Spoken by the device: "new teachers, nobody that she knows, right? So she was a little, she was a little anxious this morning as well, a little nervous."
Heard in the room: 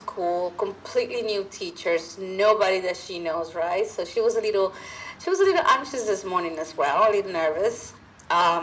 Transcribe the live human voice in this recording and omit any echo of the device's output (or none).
none